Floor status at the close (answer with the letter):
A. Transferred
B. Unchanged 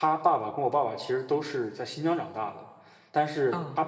B